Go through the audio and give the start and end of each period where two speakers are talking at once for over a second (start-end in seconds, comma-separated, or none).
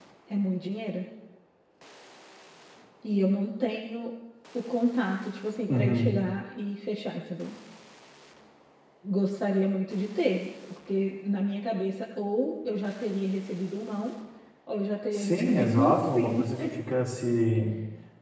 15.1-16.5